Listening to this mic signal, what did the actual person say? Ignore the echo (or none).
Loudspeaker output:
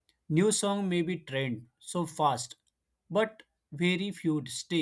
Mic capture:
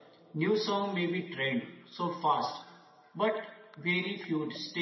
none